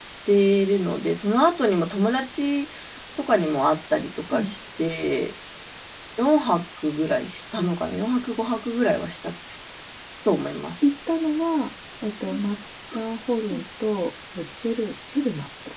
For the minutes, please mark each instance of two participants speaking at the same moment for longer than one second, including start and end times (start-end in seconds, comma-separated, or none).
none